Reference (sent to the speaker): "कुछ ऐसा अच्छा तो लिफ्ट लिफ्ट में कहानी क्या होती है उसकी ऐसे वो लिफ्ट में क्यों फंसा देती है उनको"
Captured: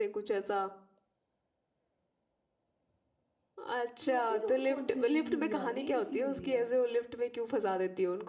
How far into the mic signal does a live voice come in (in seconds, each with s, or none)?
4.1 s